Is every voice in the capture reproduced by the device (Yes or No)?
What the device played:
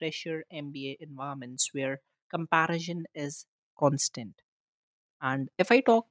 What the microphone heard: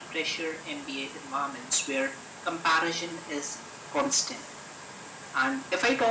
Yes